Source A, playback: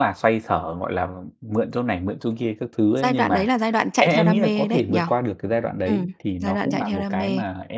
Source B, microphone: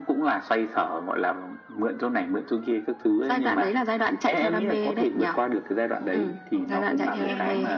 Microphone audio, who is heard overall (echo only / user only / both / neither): both